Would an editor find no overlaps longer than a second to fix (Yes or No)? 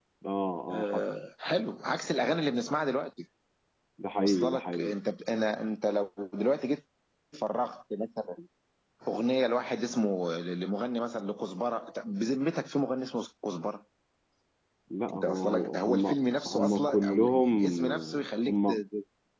No